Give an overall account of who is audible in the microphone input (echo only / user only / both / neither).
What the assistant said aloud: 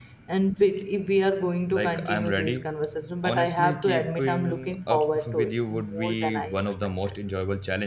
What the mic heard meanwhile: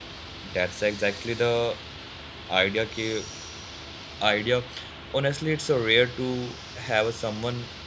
user only